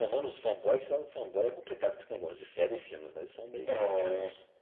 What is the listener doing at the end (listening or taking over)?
taking over